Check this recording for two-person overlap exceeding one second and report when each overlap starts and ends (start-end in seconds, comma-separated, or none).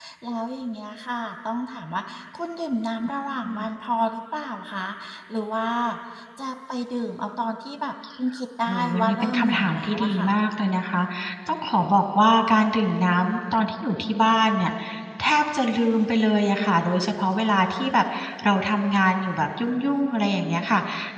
8.7-10.3